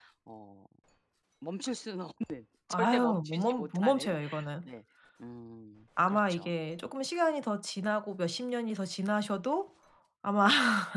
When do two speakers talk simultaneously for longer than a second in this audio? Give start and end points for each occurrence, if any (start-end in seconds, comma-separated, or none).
2.7-4.2